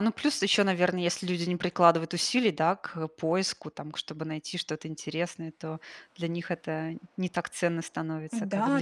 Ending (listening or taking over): taking over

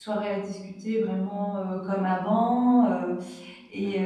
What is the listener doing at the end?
listening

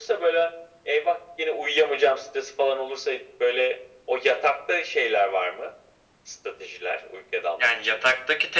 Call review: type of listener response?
taking over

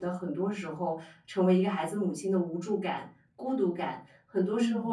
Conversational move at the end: listening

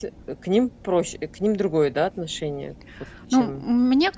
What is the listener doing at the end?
taking over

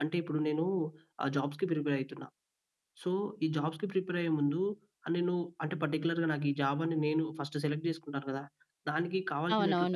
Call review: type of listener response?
taking over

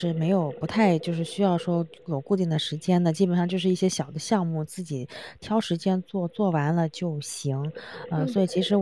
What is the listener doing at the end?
listening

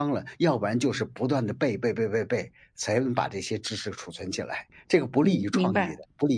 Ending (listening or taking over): taking over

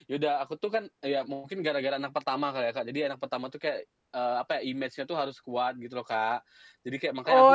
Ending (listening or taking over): taking over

